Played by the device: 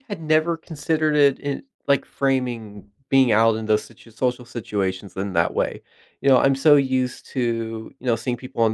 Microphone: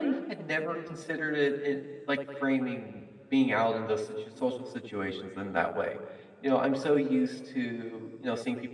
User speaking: No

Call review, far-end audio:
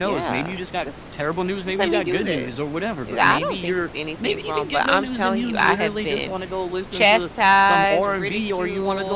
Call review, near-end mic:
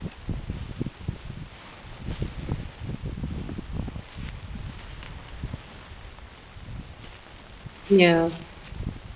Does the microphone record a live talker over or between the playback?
Yes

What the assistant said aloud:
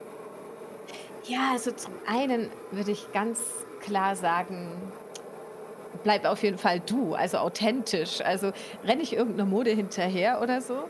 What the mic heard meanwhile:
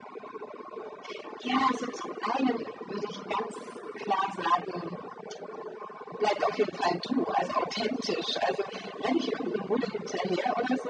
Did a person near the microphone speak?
No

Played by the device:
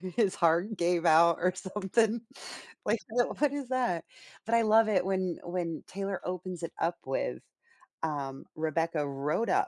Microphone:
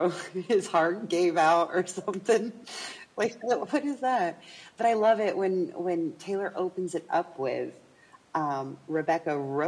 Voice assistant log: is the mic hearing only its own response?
Yes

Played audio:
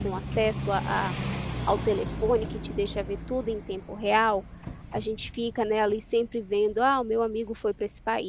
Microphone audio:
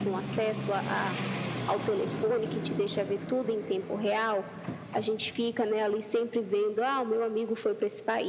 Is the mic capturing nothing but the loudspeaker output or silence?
Yes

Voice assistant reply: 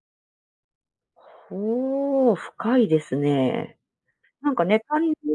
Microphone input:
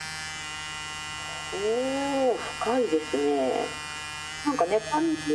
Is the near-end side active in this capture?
No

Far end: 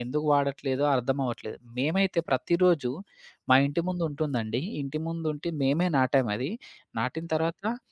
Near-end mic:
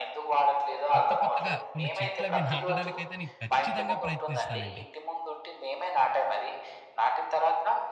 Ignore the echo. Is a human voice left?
Yes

